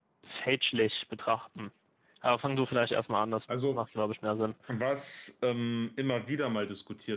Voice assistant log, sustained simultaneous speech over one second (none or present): none